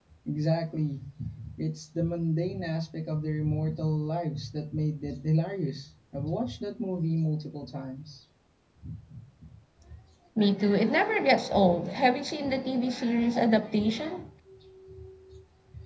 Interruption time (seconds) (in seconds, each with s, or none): none